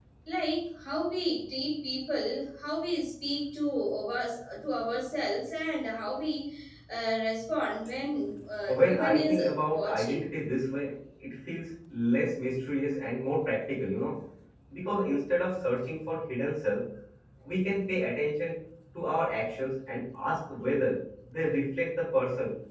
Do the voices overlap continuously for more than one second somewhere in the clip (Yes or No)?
Yes